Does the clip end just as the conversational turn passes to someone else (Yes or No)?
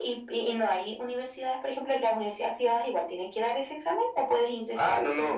Yes